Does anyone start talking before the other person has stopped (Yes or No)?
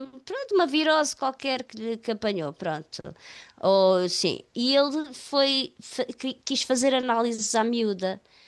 No